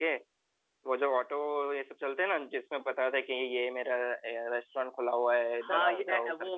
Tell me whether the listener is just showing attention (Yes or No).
No